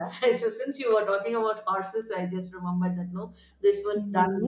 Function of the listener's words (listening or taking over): taking over